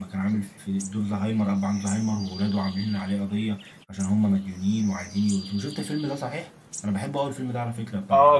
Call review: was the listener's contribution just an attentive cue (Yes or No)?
No